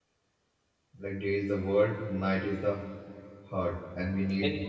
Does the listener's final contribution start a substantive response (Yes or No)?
No